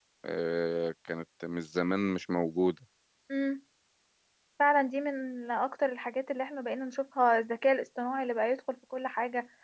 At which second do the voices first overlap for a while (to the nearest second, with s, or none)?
none